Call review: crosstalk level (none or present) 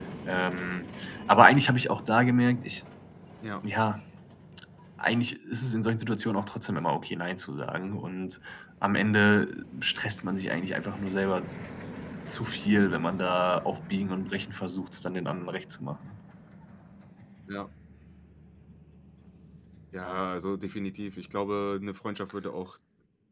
none